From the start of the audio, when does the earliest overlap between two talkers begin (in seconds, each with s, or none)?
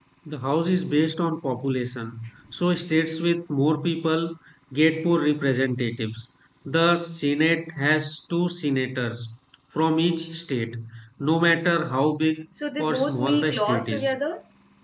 12.6 s